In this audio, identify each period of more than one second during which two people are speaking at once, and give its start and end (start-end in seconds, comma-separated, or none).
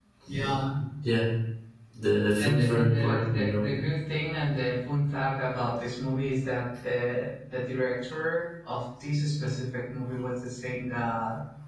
2.4-3.7